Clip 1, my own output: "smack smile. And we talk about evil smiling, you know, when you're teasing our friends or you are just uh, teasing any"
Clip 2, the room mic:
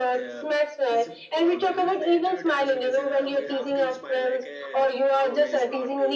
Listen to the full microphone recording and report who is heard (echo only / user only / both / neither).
both